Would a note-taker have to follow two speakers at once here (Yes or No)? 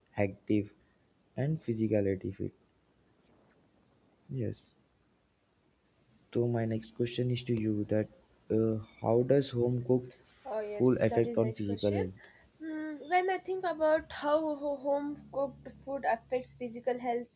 Yes